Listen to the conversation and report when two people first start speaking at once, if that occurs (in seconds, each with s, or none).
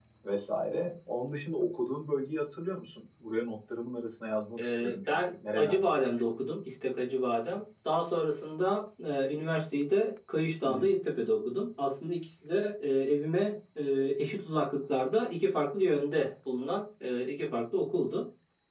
4.6 s